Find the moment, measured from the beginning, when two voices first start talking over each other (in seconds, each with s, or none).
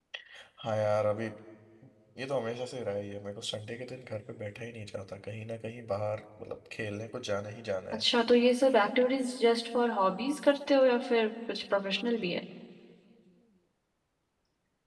none